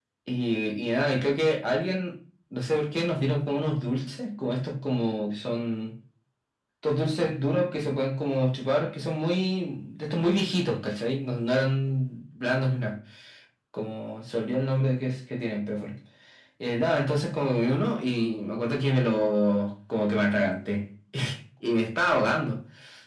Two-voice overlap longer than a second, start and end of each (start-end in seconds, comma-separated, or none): none